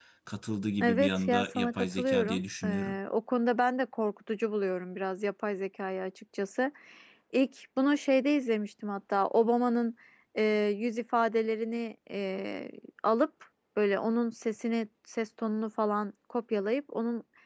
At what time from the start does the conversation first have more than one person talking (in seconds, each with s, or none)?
0.8 s